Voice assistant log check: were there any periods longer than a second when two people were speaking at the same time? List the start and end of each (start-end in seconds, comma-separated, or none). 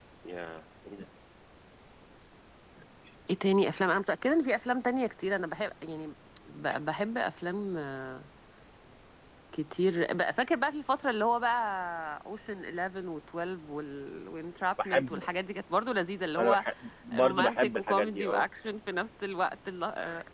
17.2-18.4